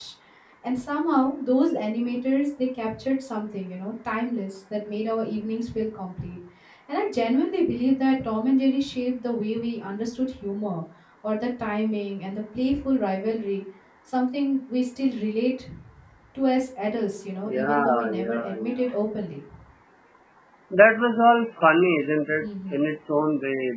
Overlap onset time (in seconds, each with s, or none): 17.5 s